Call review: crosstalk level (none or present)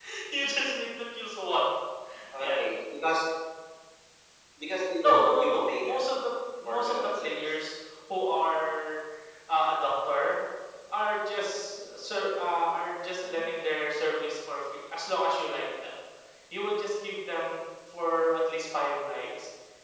present